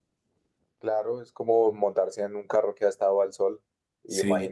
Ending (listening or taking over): listening